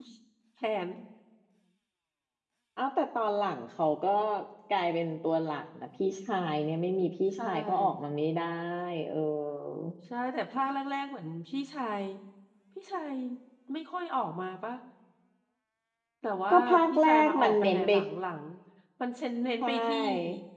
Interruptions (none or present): present